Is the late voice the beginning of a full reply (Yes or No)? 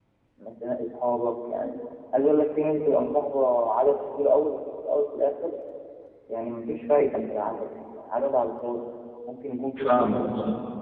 No